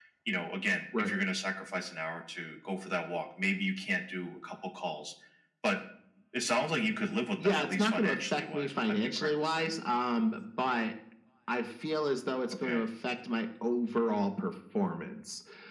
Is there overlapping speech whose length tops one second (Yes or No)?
Yes